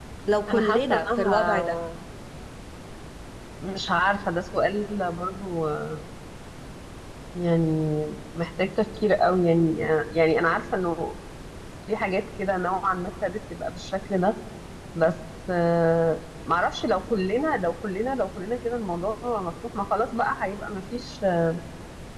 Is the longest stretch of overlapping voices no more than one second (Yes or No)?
No